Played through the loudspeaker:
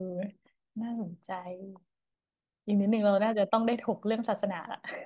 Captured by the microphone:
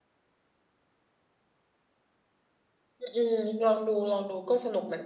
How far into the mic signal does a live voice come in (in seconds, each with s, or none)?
3.0 s